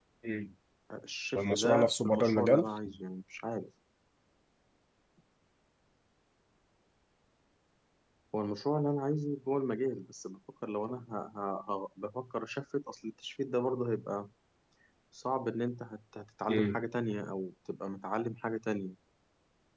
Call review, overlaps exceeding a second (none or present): present